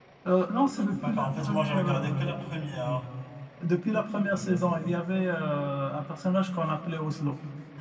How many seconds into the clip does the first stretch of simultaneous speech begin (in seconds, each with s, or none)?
0.9 s